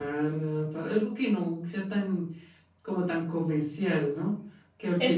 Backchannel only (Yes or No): No